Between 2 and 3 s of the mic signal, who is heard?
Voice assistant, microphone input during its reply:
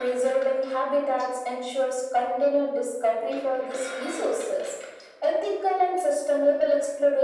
echo only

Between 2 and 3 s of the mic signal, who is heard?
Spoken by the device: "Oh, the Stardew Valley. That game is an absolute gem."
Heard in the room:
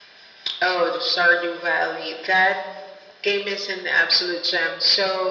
echo only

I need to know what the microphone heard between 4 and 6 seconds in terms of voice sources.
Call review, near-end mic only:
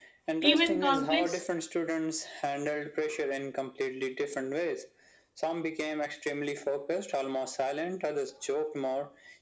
echo only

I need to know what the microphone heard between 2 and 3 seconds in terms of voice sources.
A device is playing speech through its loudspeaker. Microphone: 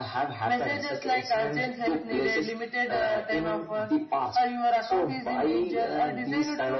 echo only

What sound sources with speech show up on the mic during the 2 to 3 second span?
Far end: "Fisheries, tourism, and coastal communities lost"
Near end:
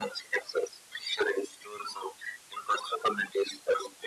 echo only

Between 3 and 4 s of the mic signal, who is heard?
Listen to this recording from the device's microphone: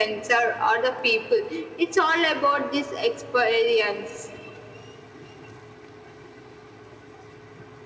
echo only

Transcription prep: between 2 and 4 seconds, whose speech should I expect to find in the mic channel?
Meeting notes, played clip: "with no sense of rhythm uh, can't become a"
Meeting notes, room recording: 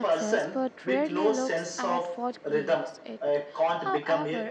both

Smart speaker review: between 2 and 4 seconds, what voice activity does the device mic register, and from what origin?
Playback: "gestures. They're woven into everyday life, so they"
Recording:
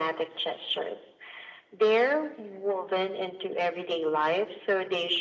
echo only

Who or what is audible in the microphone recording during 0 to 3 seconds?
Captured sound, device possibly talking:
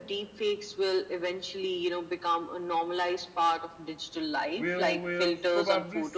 echo only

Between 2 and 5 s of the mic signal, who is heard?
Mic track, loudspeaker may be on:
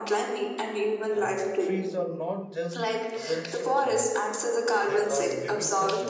both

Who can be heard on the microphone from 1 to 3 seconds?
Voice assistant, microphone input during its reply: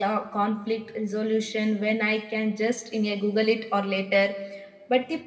echo only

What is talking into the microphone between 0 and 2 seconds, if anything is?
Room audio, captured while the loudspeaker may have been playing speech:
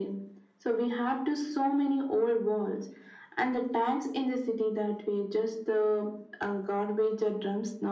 echo only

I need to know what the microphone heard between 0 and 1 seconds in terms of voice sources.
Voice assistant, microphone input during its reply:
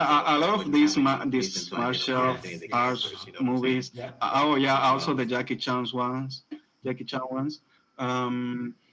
echo only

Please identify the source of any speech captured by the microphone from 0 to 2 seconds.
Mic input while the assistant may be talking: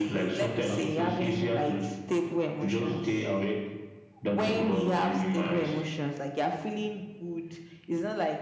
both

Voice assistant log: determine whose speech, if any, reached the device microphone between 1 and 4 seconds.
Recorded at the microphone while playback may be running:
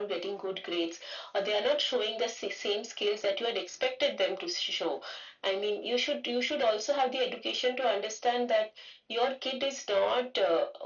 echo only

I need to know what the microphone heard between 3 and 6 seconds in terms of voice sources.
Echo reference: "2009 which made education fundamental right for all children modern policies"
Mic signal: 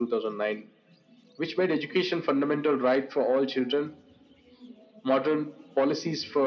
echo only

